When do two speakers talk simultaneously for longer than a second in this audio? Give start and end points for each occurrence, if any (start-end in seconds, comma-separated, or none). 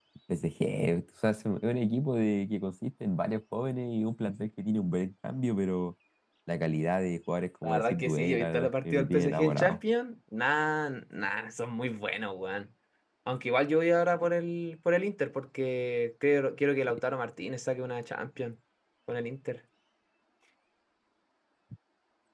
7.6-9.8